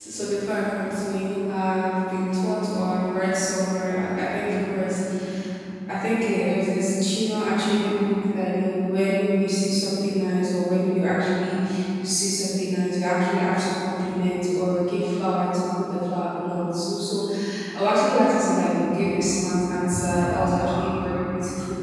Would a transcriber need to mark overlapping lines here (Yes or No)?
No